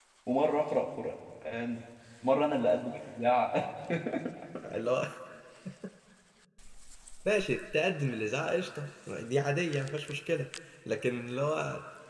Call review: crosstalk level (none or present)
none